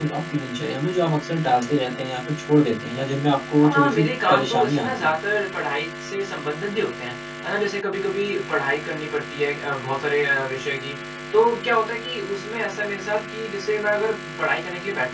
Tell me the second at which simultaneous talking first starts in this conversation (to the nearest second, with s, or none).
4 s